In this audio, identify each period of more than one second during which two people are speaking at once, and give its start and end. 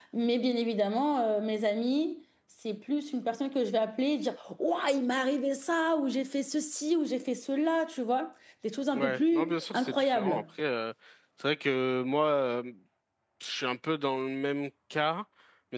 8.9-10.4

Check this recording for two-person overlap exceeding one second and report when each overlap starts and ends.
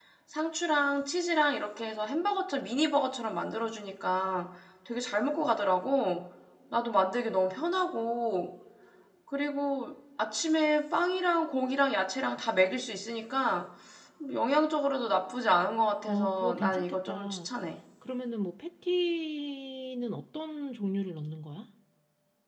16.1-17.5

